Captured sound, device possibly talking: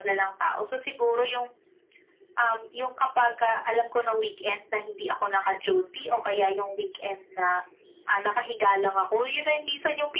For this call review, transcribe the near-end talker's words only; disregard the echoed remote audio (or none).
none